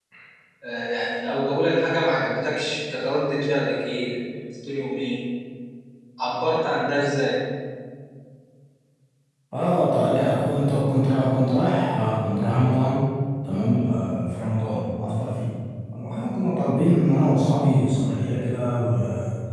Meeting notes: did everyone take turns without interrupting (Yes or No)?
Yes